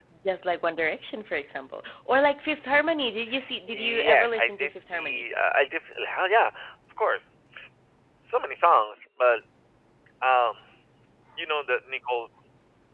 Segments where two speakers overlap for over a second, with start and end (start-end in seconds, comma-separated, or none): 3.7-5.2